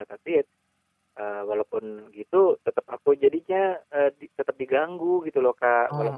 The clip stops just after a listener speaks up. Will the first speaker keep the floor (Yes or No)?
Yes